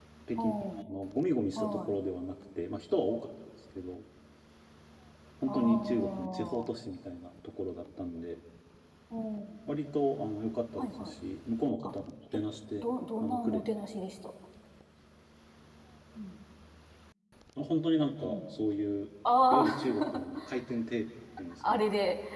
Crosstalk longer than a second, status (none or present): present